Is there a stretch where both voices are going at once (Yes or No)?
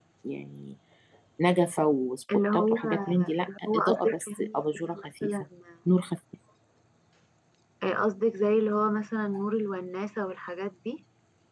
Yes